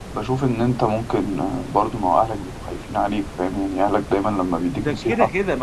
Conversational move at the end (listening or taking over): taking over